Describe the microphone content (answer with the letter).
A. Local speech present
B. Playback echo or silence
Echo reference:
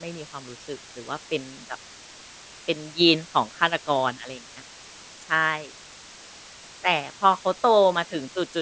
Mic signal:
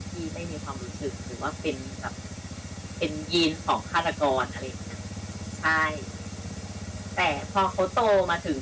B